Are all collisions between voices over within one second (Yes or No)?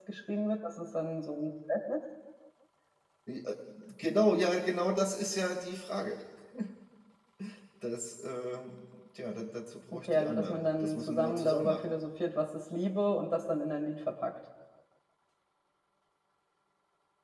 No